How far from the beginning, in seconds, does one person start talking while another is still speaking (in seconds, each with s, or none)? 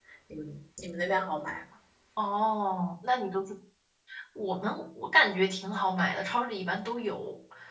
none